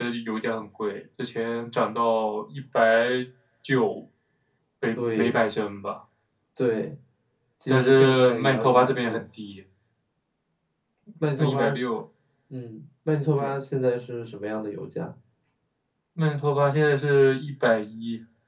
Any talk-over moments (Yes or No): Yes